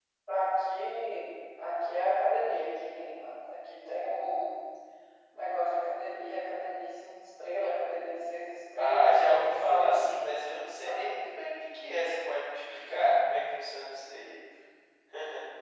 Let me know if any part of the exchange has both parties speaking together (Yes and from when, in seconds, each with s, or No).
Yes, from 8.8 s